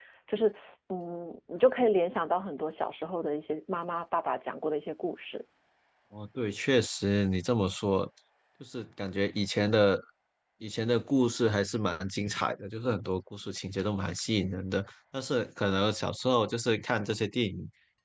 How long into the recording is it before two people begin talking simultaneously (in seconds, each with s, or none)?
none